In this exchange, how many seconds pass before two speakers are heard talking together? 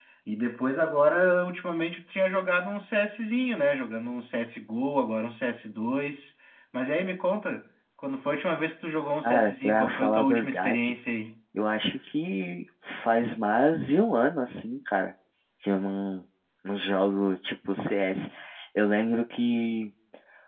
9.2 s

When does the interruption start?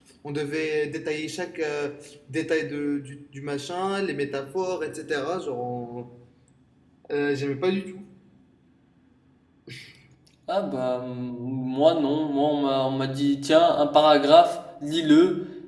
none

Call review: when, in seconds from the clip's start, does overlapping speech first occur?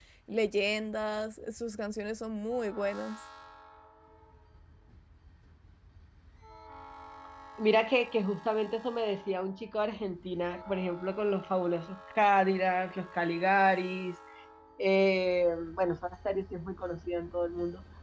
none

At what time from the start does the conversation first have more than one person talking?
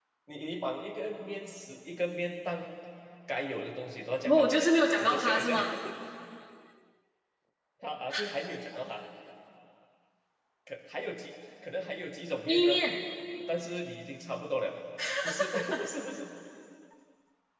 4.2 s

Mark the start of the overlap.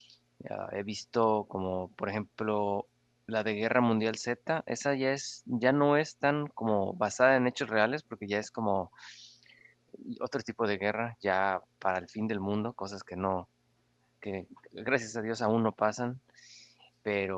none

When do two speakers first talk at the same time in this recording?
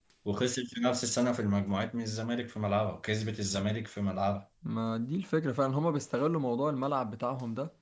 none

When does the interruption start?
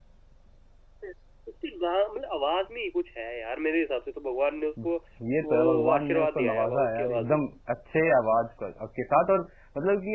5.4 s

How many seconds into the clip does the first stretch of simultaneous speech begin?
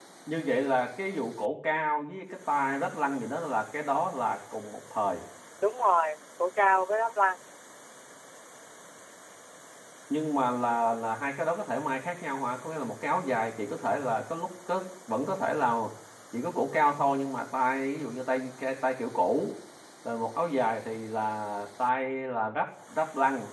none

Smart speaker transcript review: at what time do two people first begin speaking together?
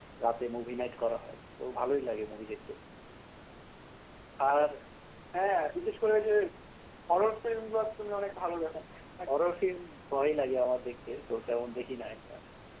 none

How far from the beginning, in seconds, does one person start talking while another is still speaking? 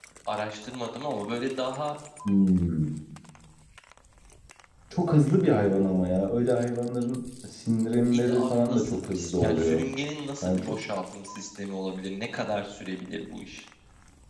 8.1 s

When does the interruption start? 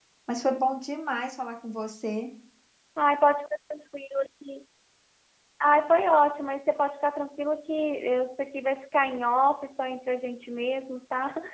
none

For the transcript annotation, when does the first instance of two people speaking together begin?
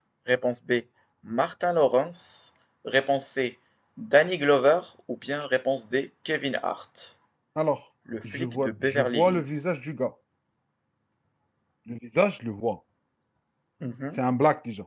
8.2 s

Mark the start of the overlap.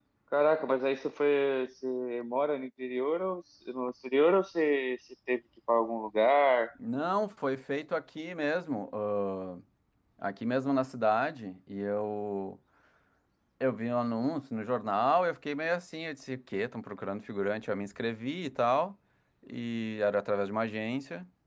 none

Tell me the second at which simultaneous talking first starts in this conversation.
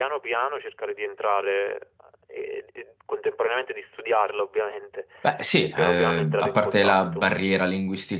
5.8 s

